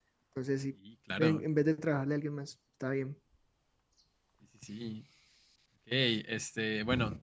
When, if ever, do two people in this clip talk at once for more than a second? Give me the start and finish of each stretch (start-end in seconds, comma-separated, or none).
none